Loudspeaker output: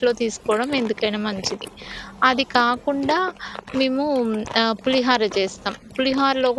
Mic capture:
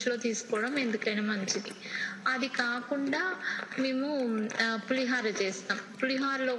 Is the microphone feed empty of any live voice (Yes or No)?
Yes